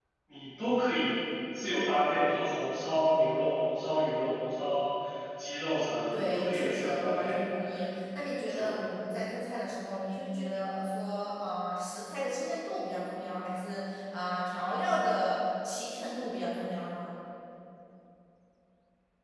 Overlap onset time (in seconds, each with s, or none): 6.1 s